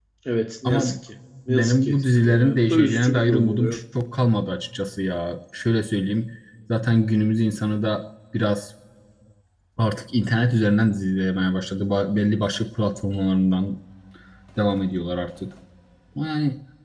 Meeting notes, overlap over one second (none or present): present